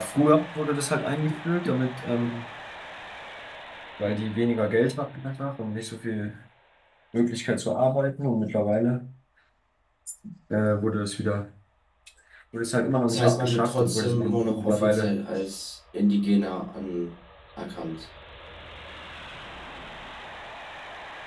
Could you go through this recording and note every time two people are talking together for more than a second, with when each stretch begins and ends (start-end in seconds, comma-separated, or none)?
13.1-15.2